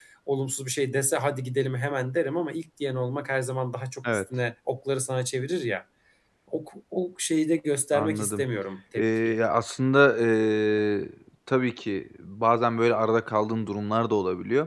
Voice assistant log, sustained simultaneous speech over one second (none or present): none